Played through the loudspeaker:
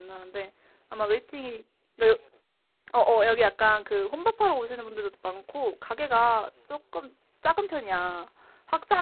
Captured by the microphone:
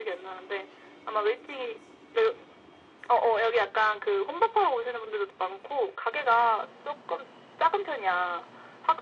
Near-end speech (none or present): none